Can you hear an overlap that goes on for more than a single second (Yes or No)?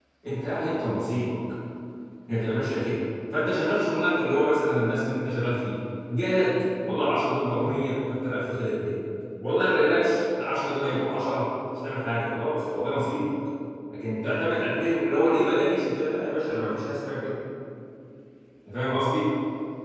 No